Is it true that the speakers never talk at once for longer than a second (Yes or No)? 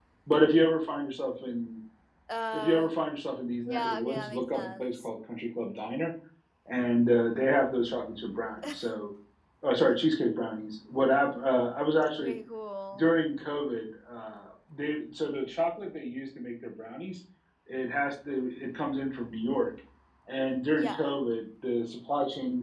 No